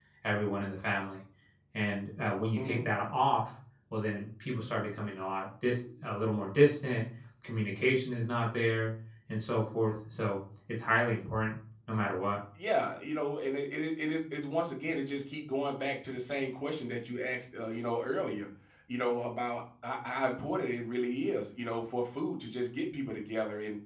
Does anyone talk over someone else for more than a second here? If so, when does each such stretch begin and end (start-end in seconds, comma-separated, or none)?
none